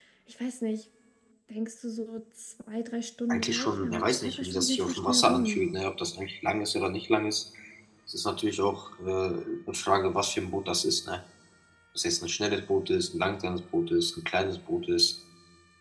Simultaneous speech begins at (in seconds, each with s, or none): 3.3 s